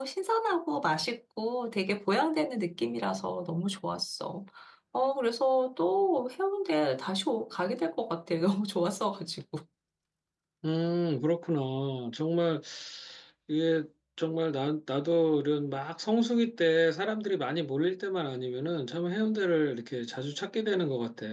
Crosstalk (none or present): none